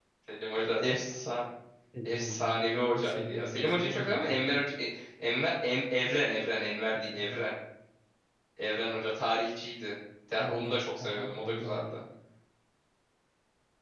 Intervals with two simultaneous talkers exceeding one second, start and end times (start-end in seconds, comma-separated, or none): 2.0-4.7, 10.5-12.0